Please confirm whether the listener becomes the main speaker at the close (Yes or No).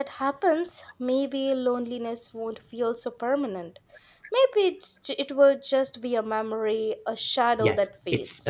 Yes